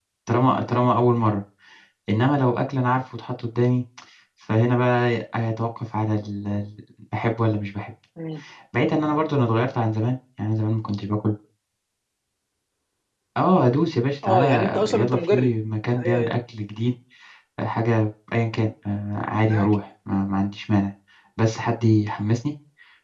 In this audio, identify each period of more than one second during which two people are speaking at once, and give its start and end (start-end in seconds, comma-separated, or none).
14.2-15.5